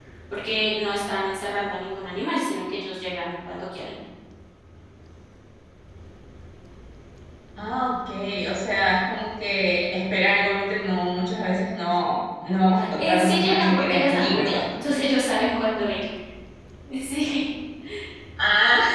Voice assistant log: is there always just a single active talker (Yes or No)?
No